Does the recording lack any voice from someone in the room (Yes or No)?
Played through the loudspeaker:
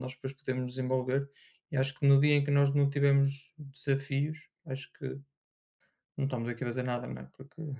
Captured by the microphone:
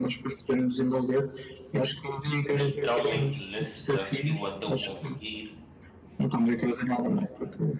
No